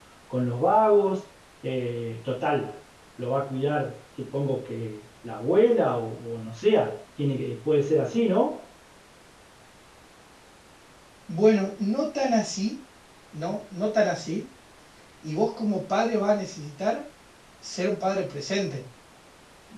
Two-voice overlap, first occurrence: none

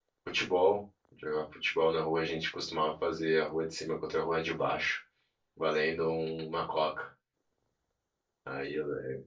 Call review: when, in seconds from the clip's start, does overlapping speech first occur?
none

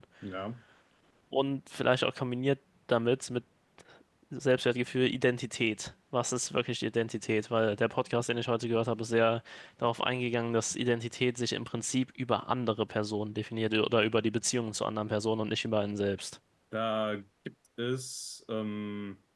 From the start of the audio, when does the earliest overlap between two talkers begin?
none

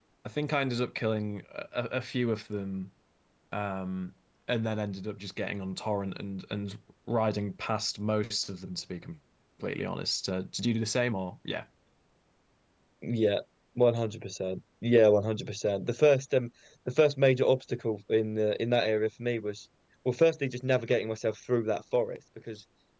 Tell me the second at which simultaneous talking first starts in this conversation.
none

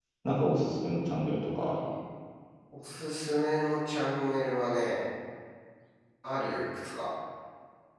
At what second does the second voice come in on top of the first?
none

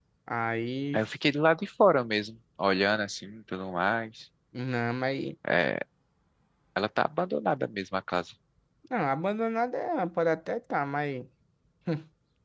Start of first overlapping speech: none

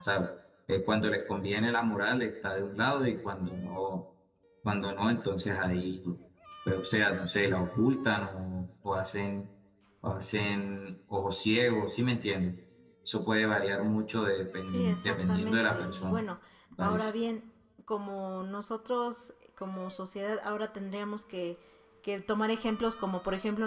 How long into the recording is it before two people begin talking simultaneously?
14.7 s

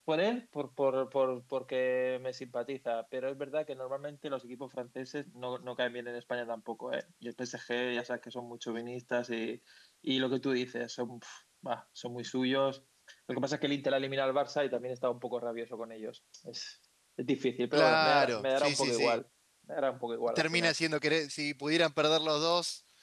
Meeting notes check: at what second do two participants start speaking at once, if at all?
17.7 s

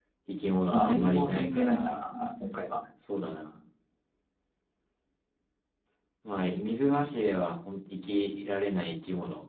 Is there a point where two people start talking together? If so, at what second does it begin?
0.7 s

